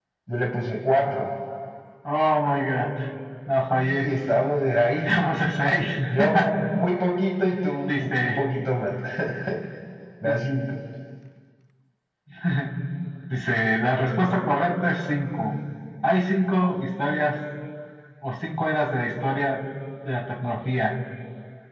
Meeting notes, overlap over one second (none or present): none